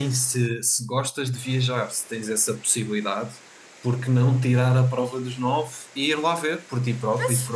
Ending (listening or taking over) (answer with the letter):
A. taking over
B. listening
A